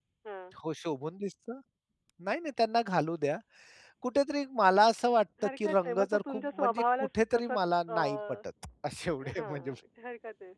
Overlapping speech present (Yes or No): Yes